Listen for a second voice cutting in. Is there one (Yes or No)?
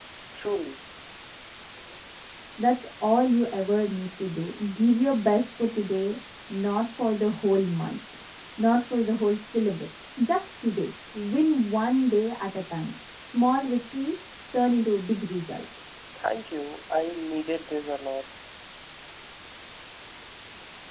No